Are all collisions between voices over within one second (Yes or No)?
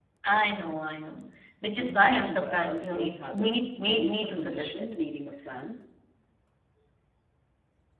No